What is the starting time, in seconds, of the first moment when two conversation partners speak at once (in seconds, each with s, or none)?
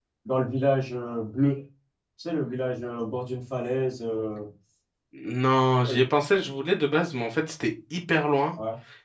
none